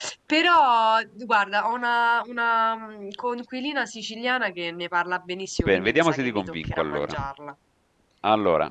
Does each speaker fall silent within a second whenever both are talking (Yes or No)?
No